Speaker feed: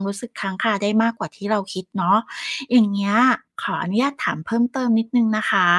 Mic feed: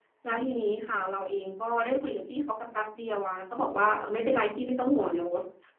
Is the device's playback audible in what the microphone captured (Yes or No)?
No